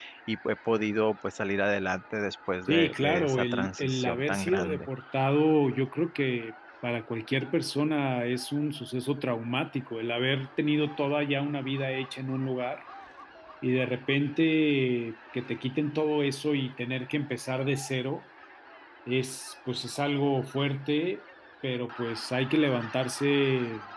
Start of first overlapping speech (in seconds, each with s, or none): 2.7 s